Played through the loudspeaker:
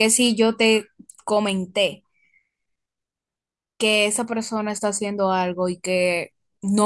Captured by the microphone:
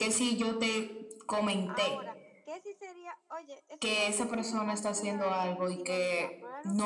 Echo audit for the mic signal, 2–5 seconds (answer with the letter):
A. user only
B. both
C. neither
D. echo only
B